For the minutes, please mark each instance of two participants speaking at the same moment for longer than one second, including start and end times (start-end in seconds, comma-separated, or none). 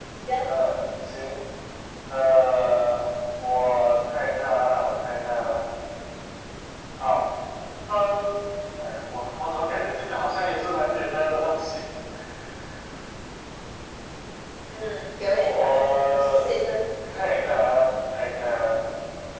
15.2-16.5